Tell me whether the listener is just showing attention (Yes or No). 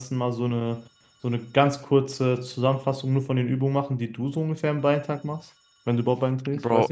No